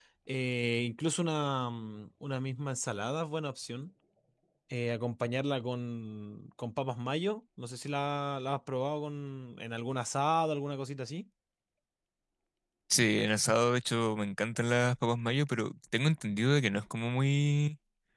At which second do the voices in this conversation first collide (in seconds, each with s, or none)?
none